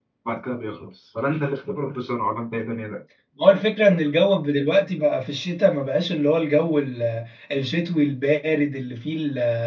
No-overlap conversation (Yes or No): Yes